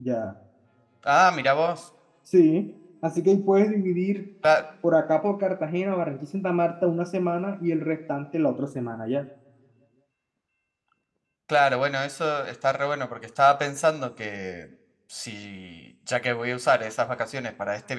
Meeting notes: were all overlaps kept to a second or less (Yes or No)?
Yes